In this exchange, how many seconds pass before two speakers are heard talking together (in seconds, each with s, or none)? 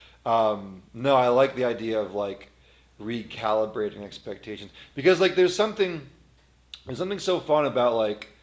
none